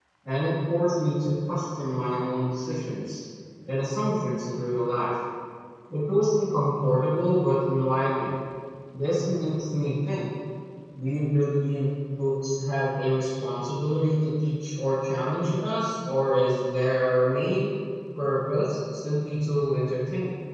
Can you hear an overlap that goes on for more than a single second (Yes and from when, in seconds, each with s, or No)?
No